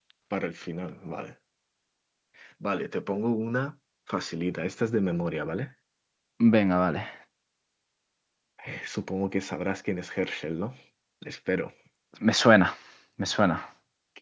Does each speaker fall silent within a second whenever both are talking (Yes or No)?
Yes